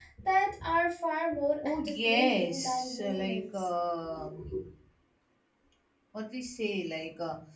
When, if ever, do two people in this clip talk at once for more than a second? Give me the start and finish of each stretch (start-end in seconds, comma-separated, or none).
1.6-3.7